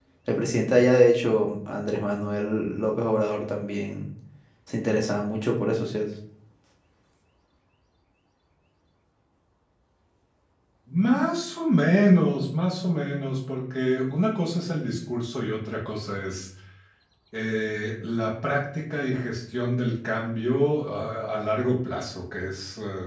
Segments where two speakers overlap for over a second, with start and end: none

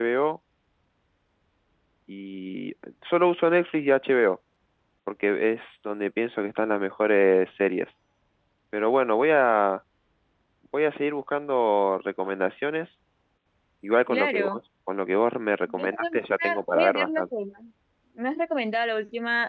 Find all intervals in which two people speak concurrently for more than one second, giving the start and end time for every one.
15.7-17.2

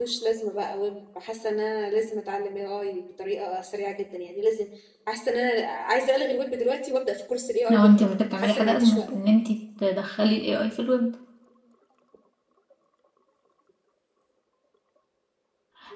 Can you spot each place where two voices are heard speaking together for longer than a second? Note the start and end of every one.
7.7-9.1

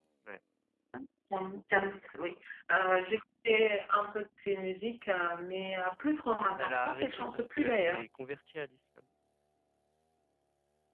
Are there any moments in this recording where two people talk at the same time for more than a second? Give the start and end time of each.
6.6-8.0

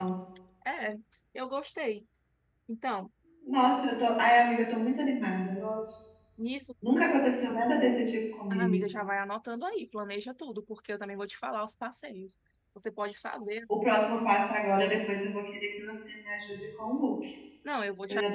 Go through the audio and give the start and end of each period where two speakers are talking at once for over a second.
none

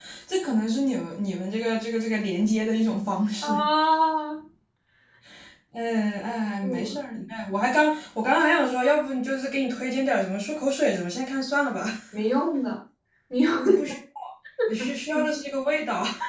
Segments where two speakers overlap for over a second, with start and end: none

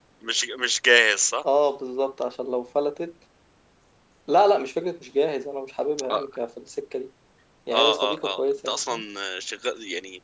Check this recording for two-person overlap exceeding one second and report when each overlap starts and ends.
7.7-9.0

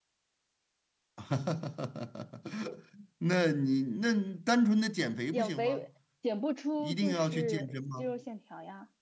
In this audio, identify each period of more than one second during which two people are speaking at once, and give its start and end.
6.8-8.2

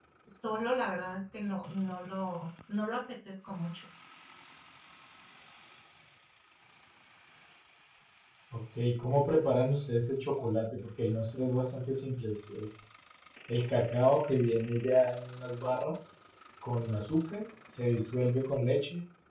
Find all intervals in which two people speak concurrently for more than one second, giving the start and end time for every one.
none

